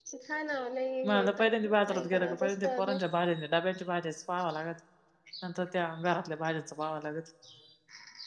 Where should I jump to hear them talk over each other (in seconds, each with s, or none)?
1.1 s